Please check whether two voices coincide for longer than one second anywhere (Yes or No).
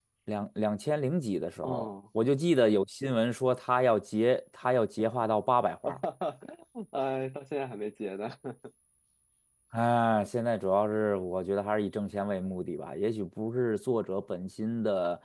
No